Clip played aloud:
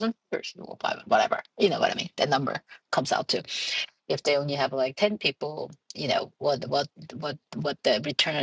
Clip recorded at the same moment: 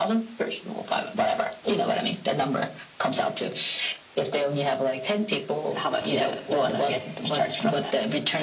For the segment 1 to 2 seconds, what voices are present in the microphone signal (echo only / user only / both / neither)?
echo only